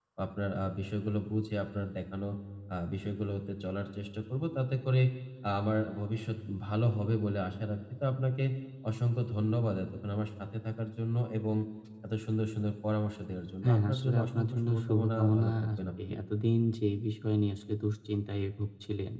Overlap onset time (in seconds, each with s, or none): 13.6 s